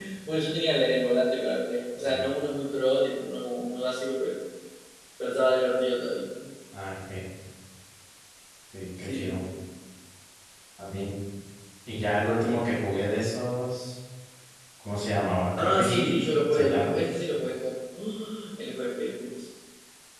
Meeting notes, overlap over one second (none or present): present